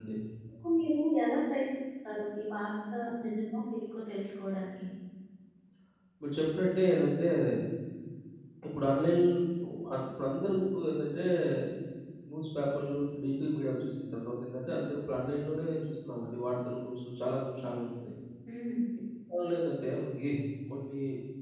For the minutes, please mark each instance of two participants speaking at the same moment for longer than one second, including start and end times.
none

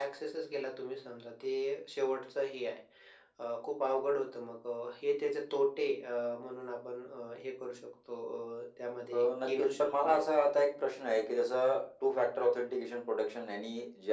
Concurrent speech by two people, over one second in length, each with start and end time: 9.1-10.4

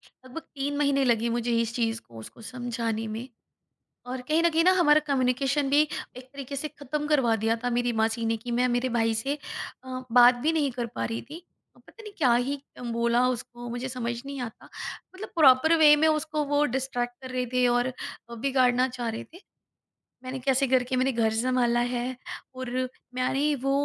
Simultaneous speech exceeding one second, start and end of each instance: none

